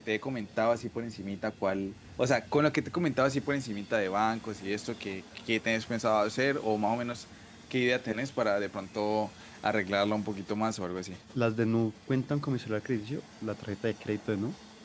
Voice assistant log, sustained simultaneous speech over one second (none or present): none